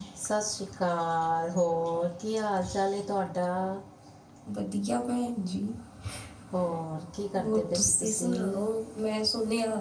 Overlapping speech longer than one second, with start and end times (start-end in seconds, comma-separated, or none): 7.4-8.6